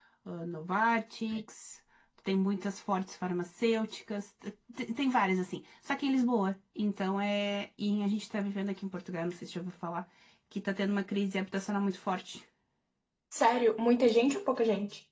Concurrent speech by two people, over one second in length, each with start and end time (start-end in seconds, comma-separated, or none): none